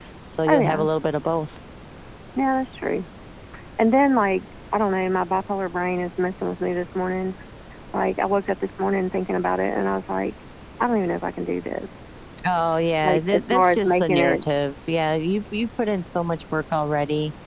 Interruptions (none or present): present